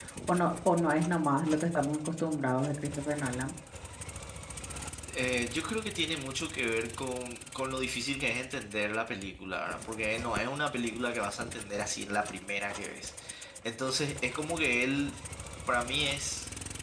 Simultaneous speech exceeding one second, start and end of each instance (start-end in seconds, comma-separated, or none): none